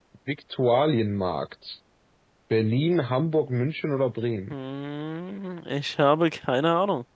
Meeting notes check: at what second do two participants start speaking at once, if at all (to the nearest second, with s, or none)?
none